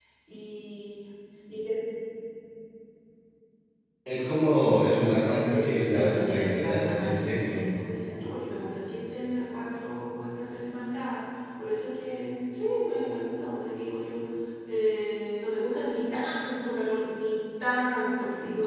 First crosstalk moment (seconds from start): 5.5 s

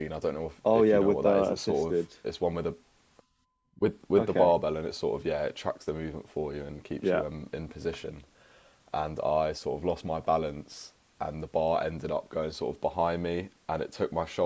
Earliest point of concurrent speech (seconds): 0.7 s

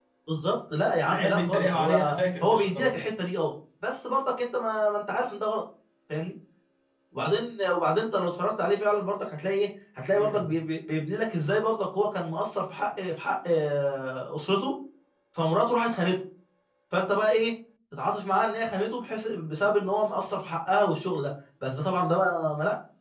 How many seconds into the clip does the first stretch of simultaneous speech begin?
1.1 s

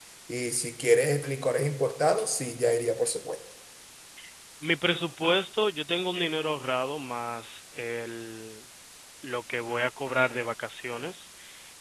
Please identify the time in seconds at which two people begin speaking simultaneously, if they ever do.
none

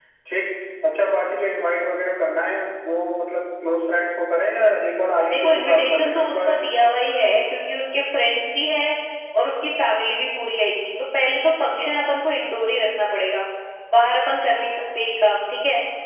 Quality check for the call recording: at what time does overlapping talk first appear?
5.3 s

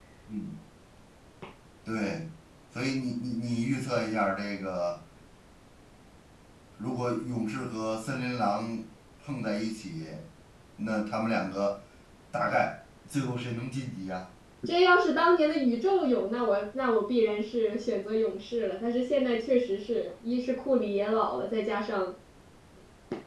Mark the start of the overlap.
none

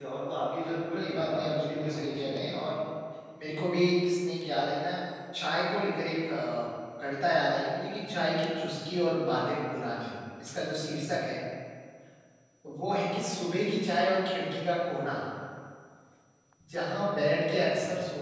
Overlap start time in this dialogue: 0.6 s

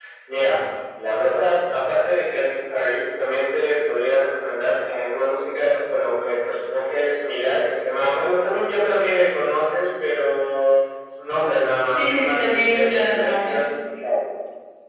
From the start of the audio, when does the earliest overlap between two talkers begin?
11.9 s

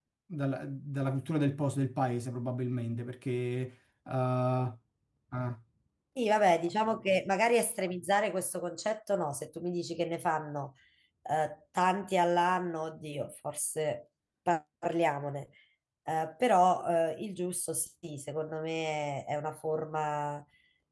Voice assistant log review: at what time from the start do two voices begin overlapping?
none

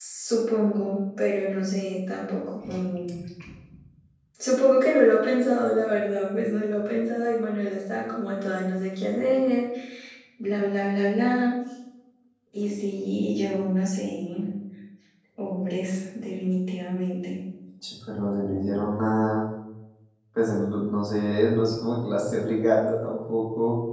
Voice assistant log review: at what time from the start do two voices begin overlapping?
none

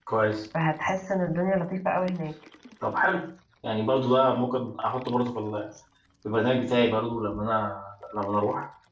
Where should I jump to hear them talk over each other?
none

